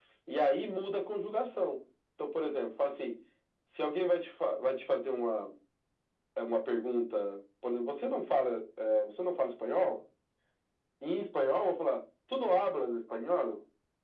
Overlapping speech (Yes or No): No